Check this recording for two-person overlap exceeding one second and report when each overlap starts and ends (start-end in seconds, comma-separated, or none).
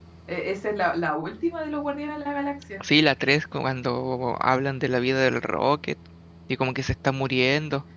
none